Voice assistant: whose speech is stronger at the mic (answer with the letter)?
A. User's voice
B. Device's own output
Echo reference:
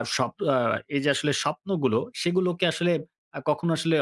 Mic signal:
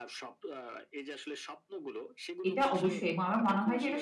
A